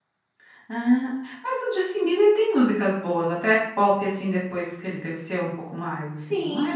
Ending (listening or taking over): taking over